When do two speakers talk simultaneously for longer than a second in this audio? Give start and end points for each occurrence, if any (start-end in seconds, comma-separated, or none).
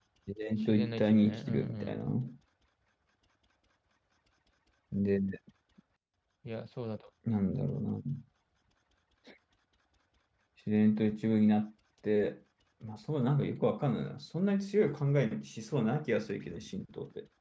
0.7-2.0